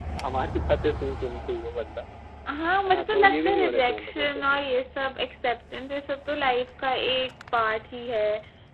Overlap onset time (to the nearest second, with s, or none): 3 s